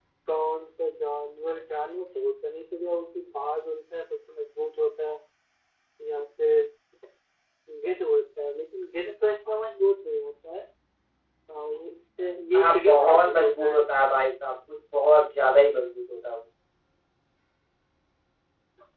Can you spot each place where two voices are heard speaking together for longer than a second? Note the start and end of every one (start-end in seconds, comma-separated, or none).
12.6-13.8